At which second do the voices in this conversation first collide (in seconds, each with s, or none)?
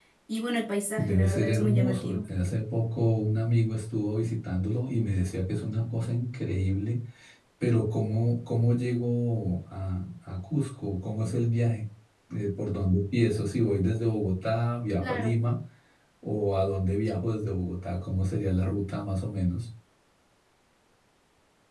0.9 s